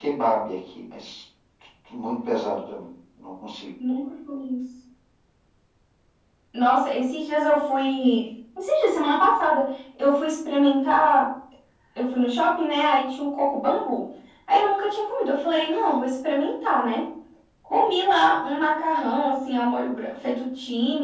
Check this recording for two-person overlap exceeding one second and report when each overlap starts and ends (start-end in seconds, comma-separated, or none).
none